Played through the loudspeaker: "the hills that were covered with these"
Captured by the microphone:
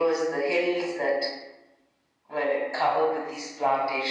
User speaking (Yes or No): No